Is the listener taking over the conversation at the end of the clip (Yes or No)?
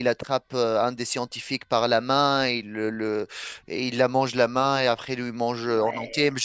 No